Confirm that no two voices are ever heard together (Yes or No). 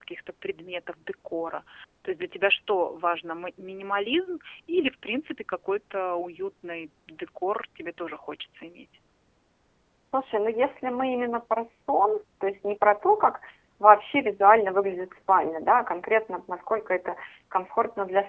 Yes